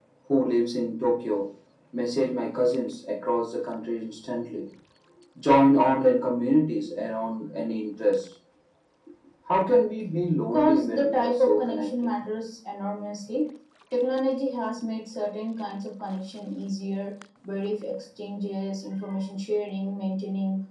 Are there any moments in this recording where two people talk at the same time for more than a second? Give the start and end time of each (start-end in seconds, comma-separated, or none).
10.5-12.1